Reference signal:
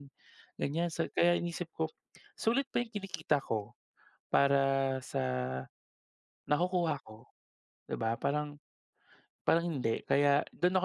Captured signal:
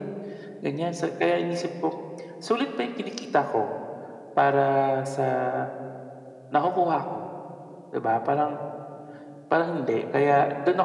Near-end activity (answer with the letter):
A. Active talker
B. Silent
B